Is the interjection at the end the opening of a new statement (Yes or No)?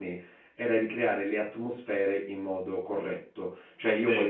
No